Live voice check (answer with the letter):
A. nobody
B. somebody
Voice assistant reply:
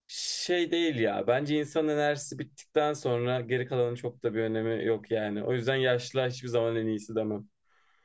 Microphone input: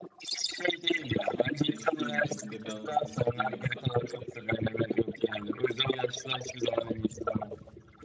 B